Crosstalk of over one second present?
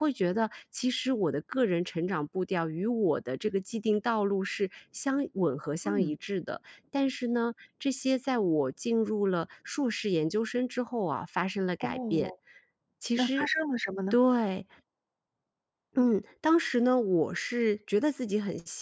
No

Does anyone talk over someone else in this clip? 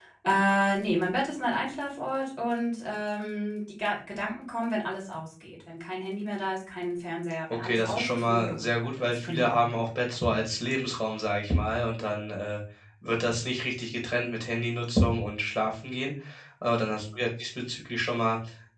Yes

